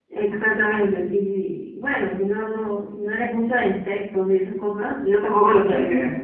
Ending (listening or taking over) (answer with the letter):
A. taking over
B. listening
B